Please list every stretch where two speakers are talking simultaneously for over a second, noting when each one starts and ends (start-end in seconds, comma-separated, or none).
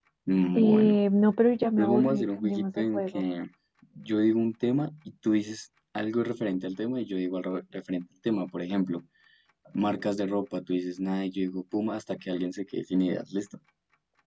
1.8-3.3